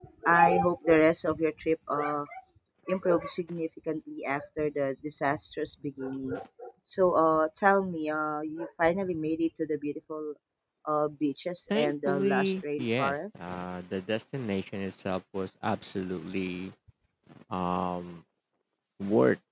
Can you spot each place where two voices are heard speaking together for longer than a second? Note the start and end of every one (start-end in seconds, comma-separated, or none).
11.7-13.4